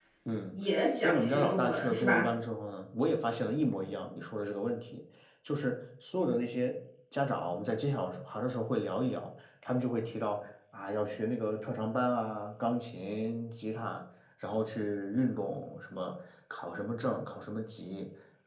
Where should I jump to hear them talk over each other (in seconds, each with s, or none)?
1.0 s